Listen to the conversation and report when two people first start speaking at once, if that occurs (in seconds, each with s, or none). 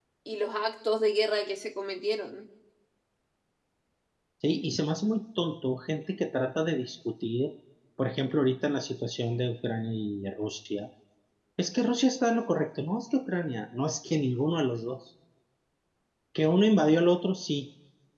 none